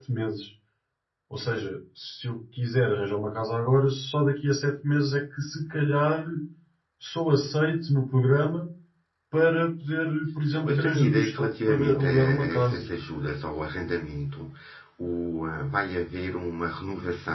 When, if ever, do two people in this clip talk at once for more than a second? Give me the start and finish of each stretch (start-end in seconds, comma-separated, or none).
10.5-12.9